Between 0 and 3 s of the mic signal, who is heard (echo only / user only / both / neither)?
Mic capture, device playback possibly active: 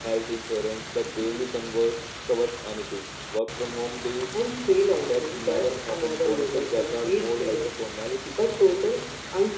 echo only